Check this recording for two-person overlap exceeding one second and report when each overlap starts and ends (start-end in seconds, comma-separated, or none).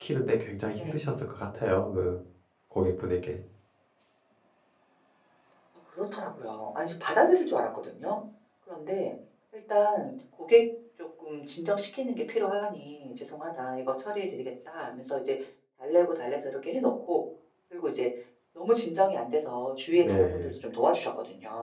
none